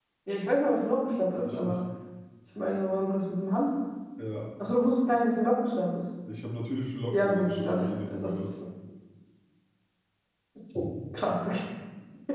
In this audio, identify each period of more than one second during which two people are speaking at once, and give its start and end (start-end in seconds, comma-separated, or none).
7.1-8.5